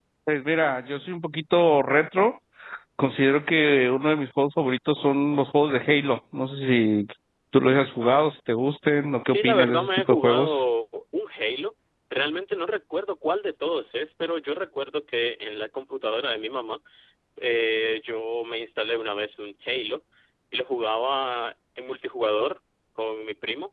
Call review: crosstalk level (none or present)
present